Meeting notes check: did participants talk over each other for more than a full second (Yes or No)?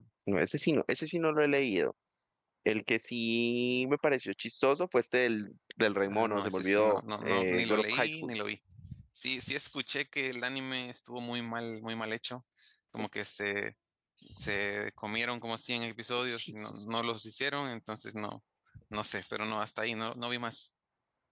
Yes